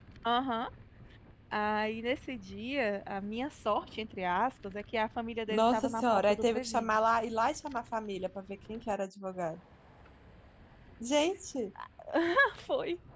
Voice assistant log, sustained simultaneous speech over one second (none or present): present